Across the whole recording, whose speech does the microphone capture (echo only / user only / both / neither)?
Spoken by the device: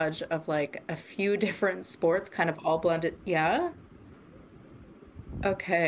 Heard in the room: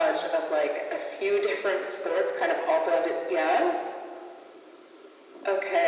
echo only